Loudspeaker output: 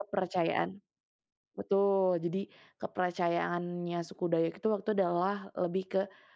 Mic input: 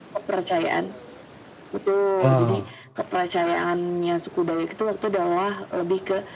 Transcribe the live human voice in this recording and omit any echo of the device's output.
Wow,

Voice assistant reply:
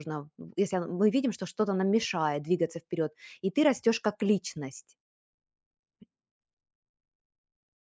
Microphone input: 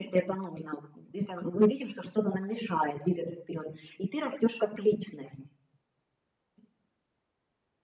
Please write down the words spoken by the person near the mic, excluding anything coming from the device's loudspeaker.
none

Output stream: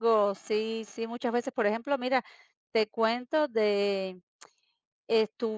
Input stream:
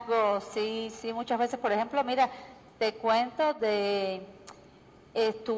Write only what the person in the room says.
none

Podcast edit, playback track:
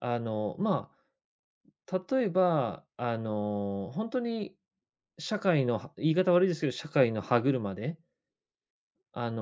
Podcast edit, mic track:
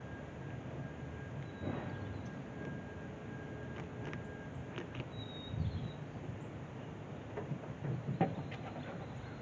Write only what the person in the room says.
none

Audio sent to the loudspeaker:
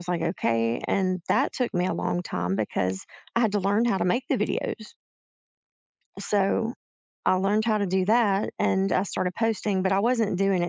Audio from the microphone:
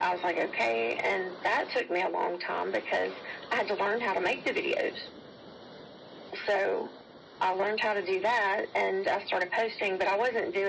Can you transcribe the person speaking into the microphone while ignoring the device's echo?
none

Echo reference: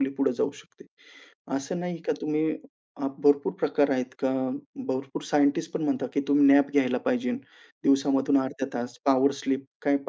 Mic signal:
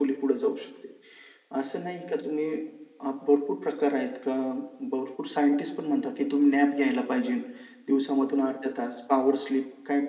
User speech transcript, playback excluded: none

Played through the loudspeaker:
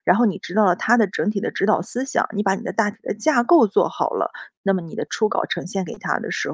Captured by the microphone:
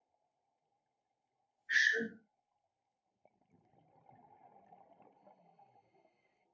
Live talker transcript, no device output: 是，

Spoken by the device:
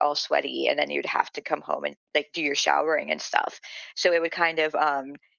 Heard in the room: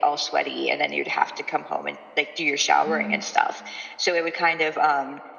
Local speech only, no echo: Mm,

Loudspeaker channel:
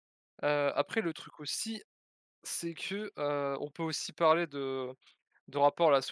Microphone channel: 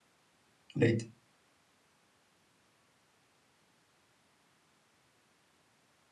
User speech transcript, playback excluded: Light?

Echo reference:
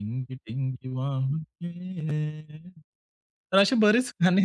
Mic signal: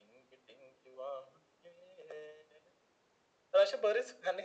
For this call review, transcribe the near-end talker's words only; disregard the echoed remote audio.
none

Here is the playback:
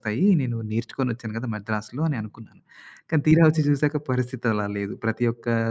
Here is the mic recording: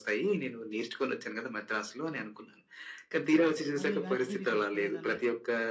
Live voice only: మళ్ళీ వెనక్కి తిరిగి చూసుకోలేదన్నట్టు.

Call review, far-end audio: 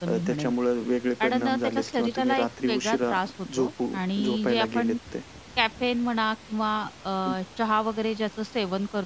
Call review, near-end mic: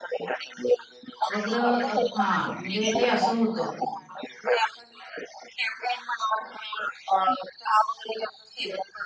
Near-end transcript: वगैरे अ, हां, म्हणजे ते असं होतं

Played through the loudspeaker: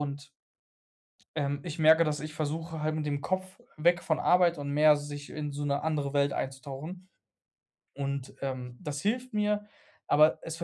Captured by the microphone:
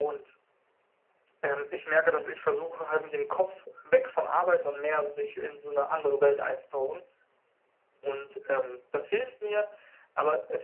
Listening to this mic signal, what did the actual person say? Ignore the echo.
none

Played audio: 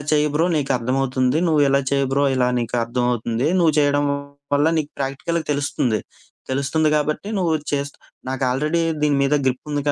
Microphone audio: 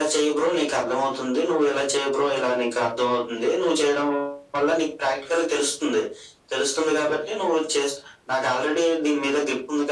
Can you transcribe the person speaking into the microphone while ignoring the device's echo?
none

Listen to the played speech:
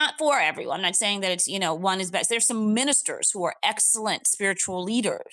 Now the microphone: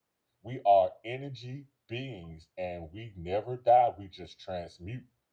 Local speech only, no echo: We are energy beings and we never die, we just transmute

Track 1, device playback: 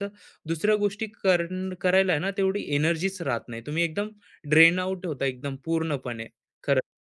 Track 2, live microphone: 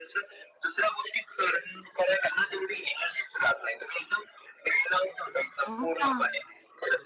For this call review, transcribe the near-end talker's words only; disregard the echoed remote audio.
हो का?

